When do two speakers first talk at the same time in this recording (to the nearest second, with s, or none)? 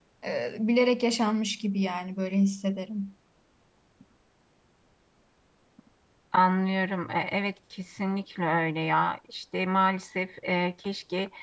none